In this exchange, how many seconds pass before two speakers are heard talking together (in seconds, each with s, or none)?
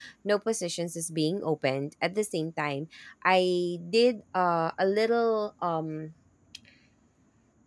none